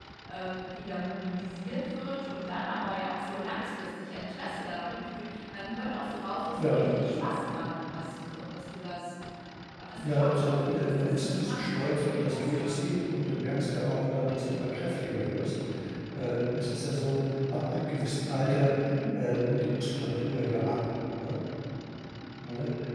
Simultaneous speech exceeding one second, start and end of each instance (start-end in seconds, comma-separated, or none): 10.0-12.7